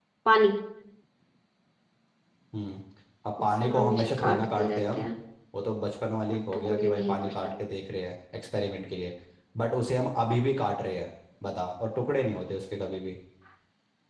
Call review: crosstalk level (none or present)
present